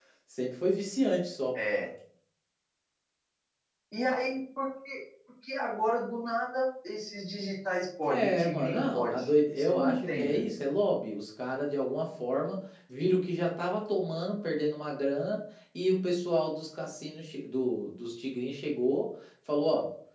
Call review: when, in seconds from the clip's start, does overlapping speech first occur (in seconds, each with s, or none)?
8.1 s